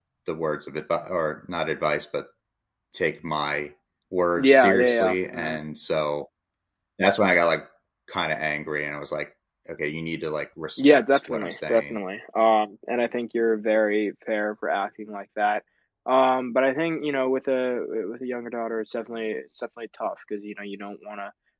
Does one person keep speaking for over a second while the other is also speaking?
Yes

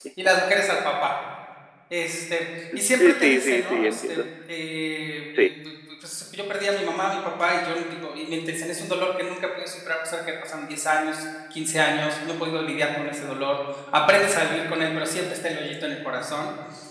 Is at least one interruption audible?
Yes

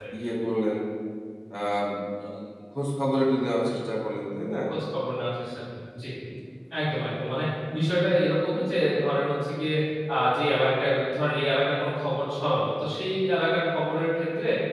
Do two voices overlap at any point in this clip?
No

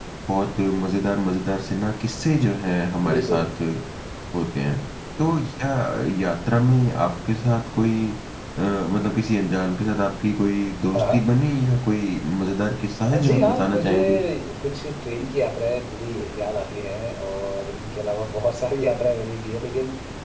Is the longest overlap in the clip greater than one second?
Yes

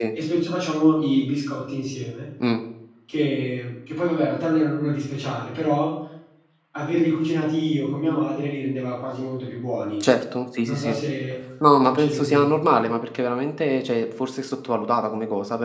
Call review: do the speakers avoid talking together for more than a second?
Yes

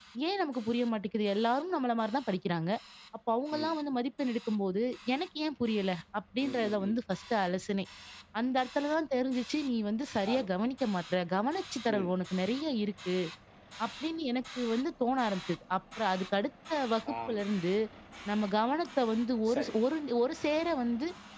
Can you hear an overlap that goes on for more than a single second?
No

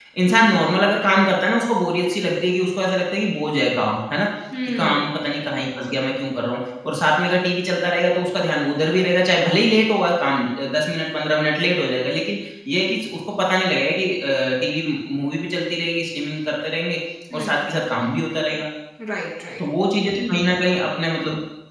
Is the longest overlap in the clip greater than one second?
No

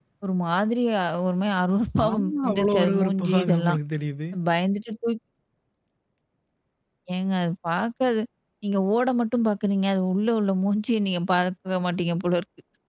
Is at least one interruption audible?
Yes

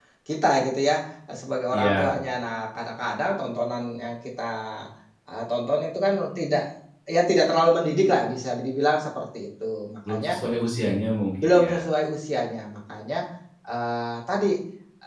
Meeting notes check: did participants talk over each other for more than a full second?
No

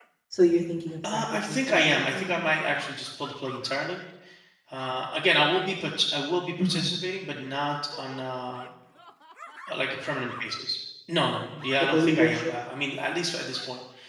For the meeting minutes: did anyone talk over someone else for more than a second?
Yes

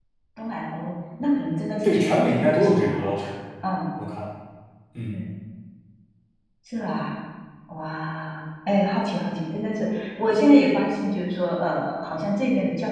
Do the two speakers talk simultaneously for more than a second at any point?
Yes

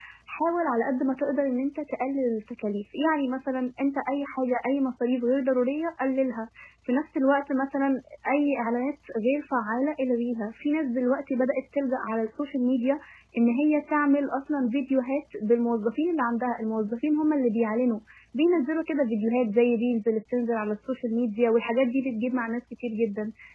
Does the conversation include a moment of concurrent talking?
No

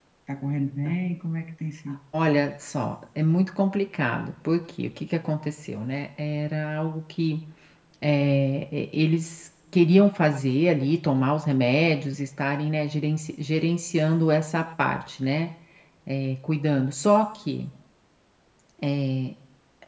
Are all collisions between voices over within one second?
Yes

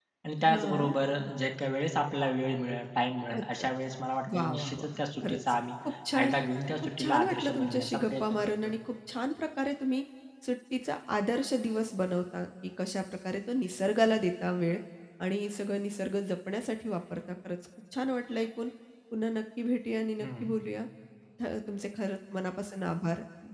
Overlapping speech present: Yes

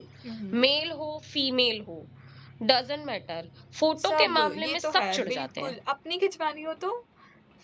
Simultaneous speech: Yes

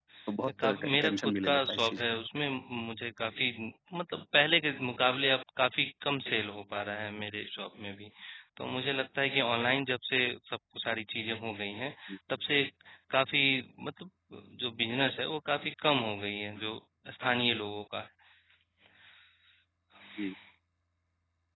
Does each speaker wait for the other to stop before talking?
No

